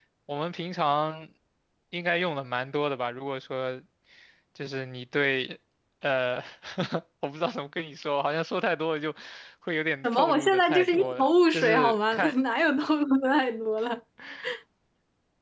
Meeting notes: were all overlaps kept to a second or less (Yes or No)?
No